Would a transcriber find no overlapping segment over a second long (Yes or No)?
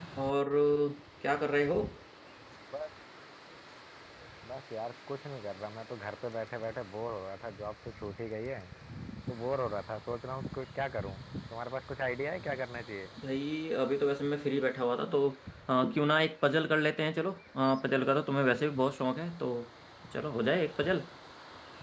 Yes